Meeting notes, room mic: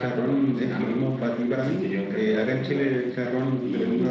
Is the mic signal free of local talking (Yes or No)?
Yes